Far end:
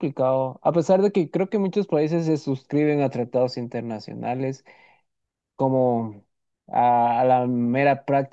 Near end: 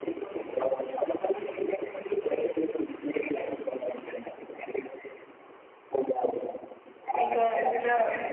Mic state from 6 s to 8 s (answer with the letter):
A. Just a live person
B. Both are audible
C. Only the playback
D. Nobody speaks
B